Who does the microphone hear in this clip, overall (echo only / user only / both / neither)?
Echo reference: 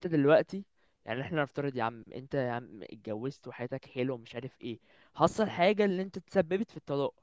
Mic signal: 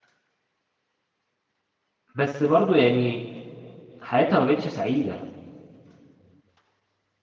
user only